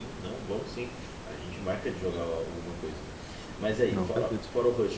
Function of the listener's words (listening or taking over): listening